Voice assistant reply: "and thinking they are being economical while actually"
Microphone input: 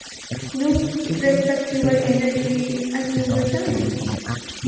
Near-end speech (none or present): present